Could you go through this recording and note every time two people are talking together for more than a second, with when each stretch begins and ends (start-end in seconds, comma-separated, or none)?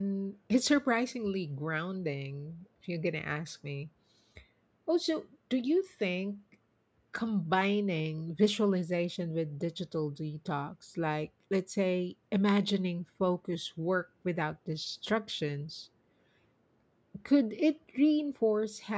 none